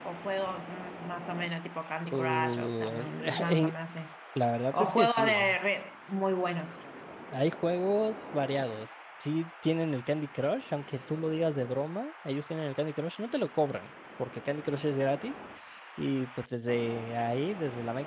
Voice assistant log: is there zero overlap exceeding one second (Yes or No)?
No